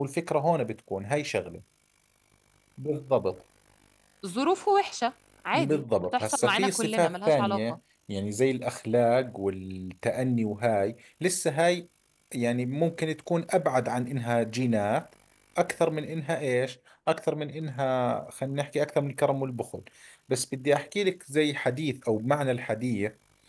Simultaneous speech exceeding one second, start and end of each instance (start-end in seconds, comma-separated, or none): 5.5-7.8